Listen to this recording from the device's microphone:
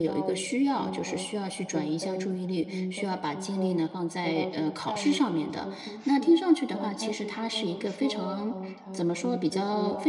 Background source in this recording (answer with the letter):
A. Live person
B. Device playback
B